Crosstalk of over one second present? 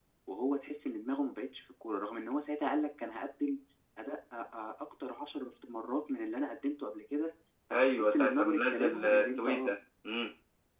Yes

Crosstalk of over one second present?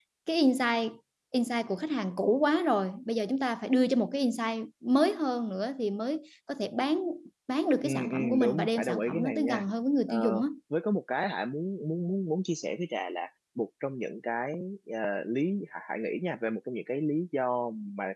Yes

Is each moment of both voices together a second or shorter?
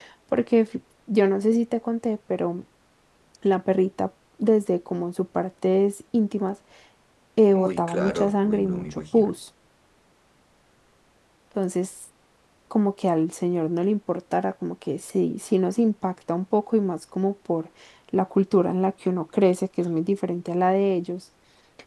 No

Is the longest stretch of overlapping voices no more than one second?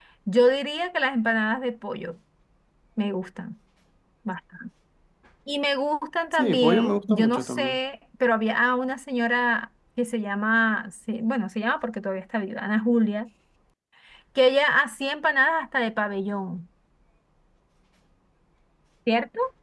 No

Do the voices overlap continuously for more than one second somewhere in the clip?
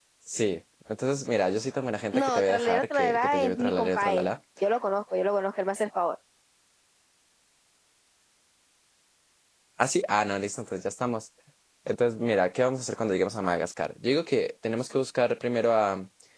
Yes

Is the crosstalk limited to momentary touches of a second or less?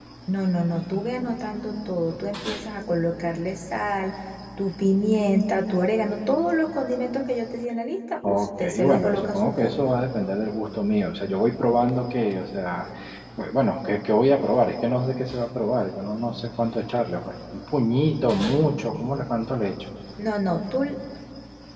No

